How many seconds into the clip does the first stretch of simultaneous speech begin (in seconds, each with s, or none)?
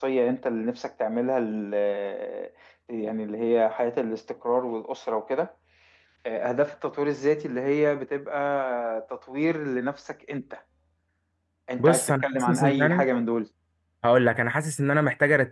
11.8 s